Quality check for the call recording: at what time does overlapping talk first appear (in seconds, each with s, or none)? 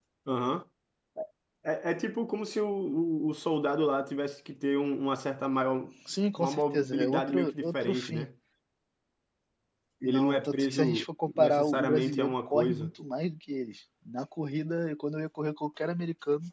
6.4 s